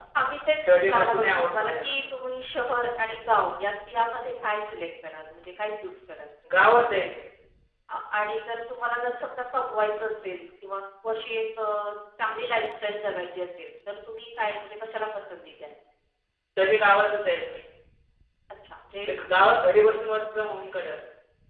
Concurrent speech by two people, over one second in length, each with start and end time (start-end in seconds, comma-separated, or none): 0.6-1.9